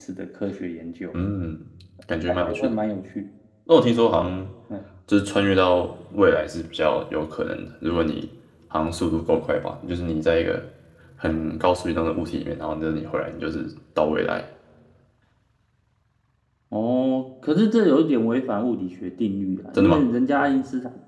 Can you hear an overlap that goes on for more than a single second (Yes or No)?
No